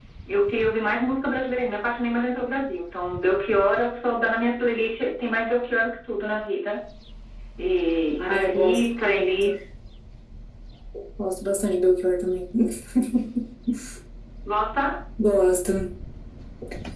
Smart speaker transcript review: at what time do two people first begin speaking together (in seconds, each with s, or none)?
8.3 s